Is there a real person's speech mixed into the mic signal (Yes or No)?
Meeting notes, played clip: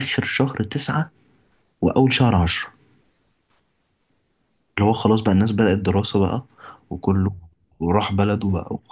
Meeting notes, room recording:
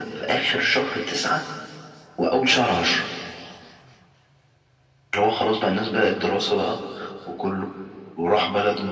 No